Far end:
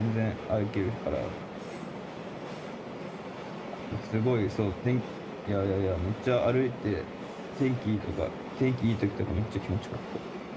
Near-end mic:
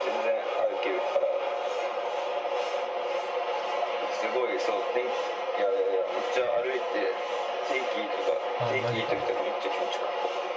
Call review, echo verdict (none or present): present